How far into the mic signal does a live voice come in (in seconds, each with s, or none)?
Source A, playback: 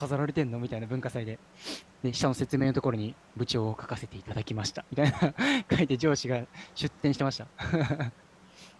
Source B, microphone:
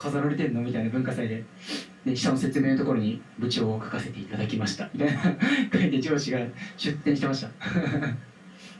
none